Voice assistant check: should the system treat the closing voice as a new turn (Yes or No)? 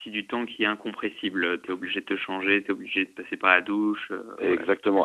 Yes